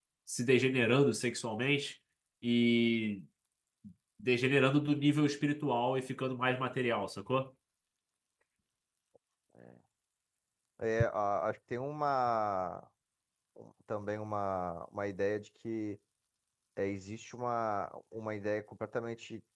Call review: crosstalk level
none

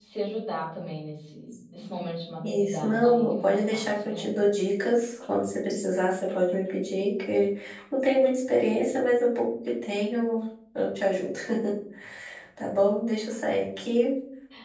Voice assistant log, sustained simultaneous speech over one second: present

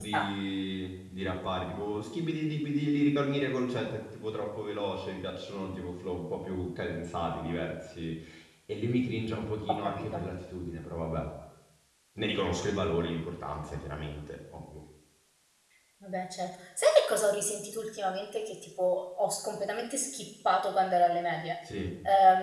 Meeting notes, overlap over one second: none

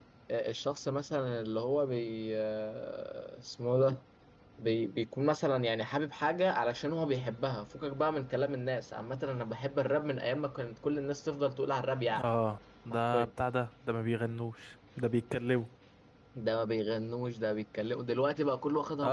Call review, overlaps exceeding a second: none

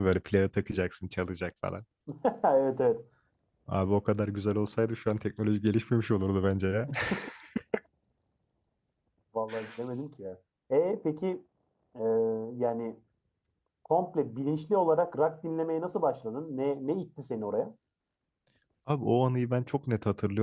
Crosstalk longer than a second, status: none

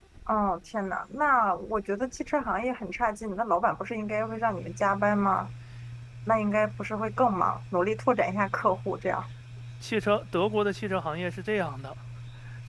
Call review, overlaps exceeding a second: none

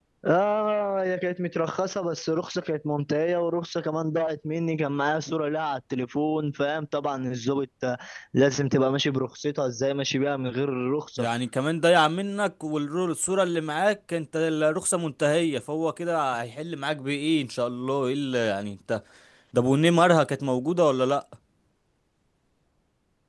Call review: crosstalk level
none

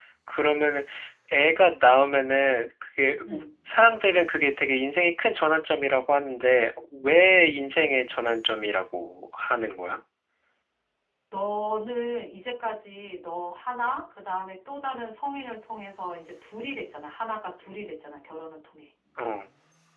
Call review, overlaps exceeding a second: none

